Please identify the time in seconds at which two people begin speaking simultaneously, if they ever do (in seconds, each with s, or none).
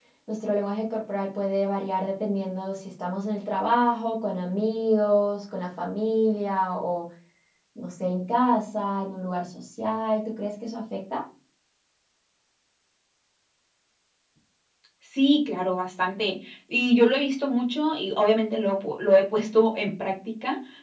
none